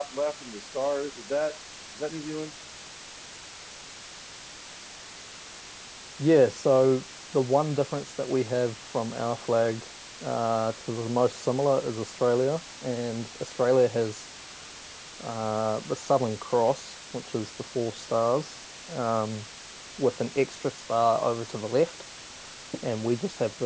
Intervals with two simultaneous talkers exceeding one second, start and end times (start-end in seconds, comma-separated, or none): none